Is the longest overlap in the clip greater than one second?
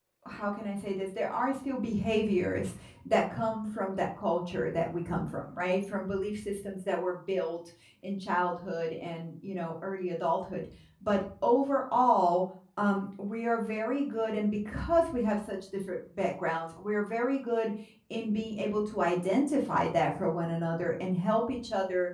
No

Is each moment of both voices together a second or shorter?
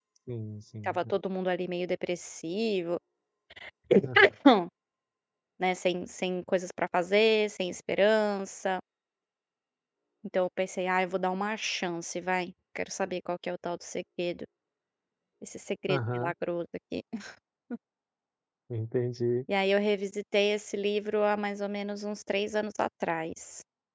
Yes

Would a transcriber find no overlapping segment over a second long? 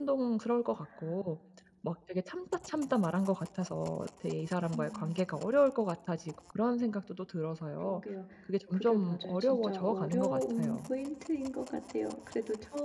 No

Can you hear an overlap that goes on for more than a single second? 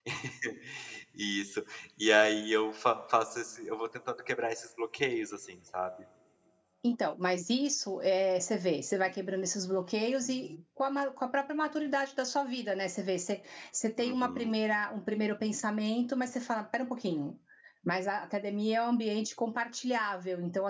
No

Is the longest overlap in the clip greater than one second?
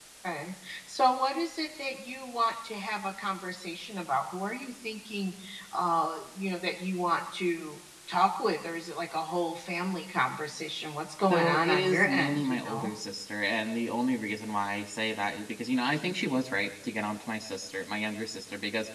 Yes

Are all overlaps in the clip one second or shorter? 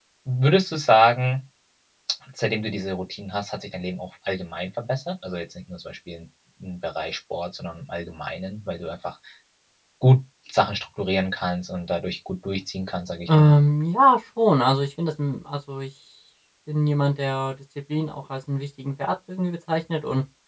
Yes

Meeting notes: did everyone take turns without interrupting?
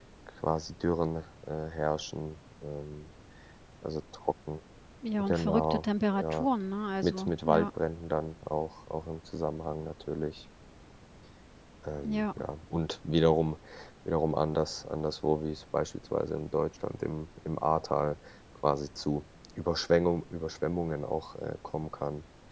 No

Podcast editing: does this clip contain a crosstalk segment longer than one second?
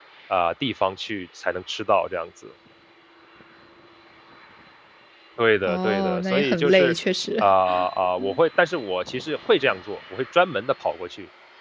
Yes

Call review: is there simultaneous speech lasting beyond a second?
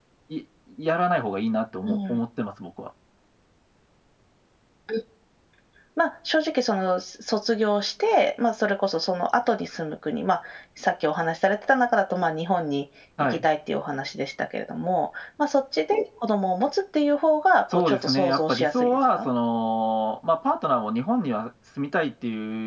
Yes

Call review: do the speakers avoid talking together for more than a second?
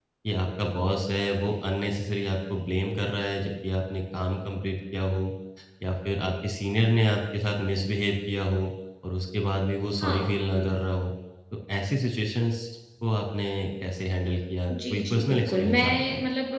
No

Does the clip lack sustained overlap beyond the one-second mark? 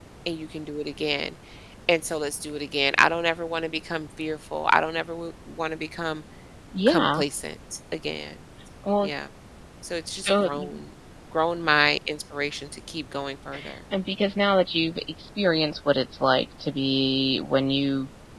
Yes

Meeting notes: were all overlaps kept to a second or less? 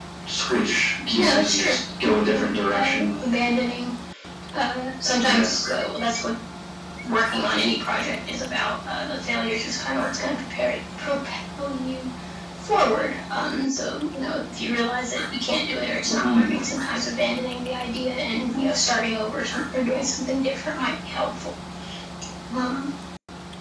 No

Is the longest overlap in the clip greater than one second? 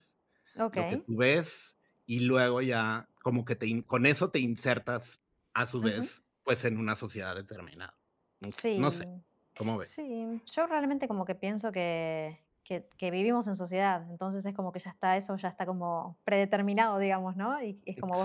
No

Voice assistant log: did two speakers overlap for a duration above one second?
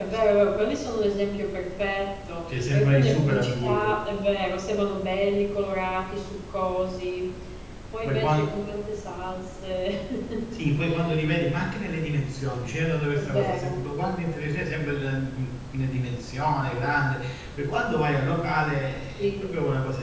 Yes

